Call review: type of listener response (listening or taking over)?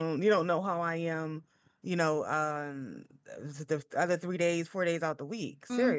taking over